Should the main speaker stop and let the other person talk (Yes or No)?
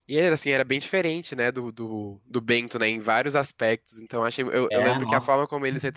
No